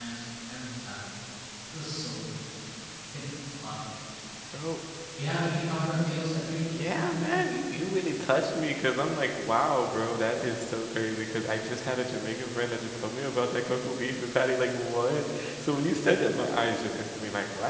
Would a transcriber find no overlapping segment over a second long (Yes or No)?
Yes